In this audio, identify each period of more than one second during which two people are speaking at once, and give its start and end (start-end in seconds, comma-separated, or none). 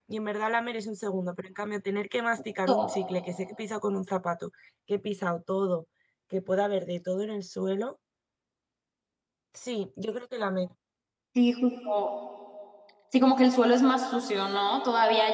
none